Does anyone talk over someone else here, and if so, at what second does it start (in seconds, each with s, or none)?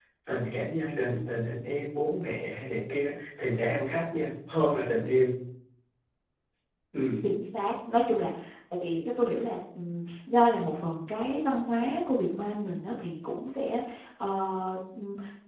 none